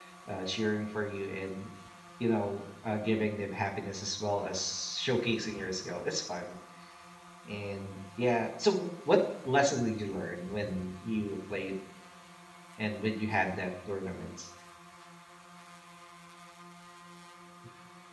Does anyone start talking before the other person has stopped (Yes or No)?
No